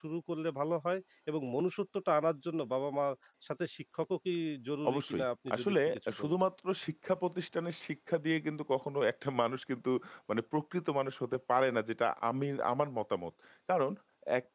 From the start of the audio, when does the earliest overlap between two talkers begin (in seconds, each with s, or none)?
4.8 s